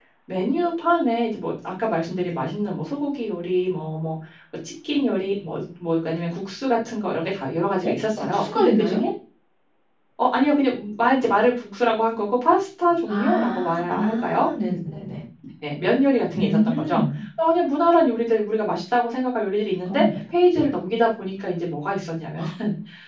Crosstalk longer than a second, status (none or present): present